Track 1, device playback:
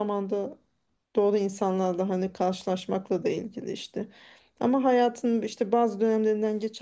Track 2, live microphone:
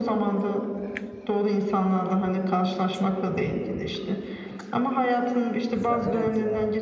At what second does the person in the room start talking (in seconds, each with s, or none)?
5.9 s